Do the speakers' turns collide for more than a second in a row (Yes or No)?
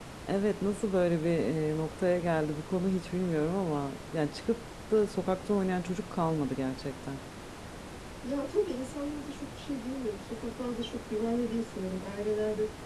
No